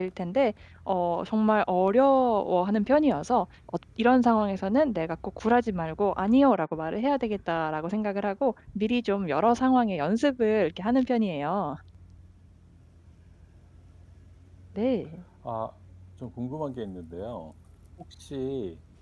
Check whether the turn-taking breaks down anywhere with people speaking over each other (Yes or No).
No